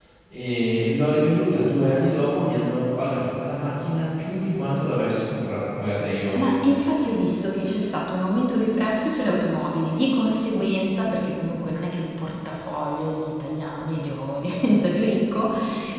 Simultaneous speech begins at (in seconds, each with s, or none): none